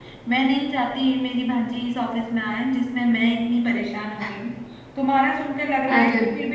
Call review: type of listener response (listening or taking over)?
listening